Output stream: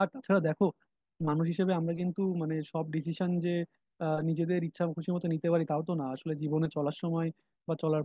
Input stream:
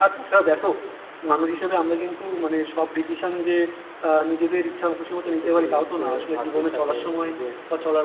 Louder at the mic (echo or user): echo